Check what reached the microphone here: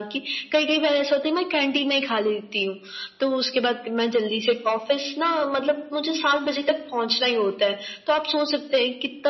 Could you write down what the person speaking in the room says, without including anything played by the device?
none

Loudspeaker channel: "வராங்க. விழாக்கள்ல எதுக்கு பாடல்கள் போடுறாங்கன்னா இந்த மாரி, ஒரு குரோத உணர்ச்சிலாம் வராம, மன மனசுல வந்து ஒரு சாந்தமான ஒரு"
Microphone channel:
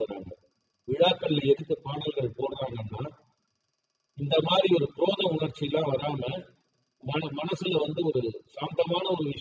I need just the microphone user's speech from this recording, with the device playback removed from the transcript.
none

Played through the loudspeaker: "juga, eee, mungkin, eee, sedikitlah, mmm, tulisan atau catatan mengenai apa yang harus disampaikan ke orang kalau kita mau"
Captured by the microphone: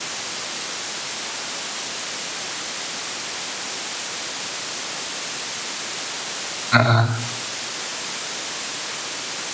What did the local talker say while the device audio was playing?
Heeh,

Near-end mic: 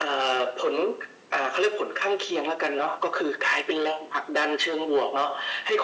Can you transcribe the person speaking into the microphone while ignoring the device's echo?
none

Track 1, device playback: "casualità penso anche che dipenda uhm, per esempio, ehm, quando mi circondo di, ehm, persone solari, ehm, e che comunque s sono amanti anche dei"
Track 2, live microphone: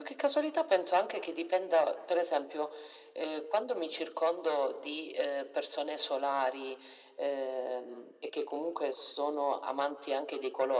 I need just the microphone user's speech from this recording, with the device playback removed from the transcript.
none

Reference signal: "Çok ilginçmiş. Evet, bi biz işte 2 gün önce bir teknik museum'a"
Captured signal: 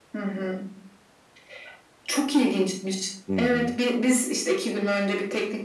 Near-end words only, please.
Hı hı.

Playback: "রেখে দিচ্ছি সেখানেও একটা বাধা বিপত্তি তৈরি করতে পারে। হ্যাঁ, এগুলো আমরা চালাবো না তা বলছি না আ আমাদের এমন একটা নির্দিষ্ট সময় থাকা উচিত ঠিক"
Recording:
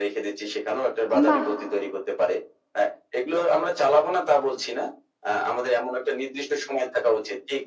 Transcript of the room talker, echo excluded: আম বাহ!

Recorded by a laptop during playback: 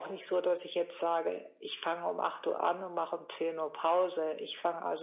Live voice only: none

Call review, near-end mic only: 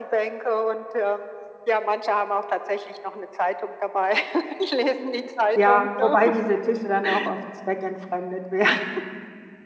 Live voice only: Ja, wobei diese Tische dann auch oft zweckentfremdet werden,

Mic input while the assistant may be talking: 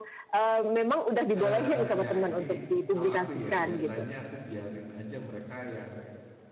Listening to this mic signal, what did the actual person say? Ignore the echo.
eee, ya ini kalau aku ya, biasanya aku biarin aja mereka yang

